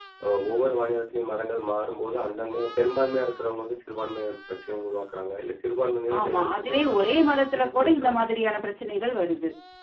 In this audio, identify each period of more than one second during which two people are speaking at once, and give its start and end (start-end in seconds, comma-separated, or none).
6.2-8.2